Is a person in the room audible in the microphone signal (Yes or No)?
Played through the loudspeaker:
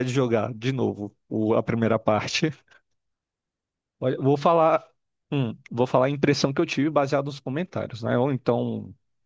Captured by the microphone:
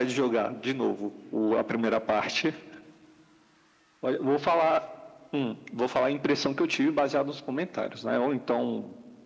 No